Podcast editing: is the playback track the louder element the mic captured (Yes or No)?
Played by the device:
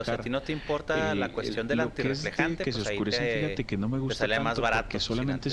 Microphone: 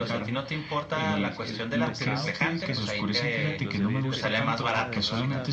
Yes